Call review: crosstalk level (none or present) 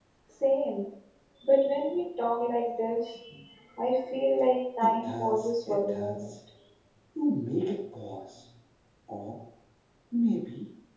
present